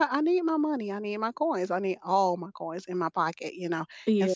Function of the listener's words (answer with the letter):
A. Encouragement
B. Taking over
A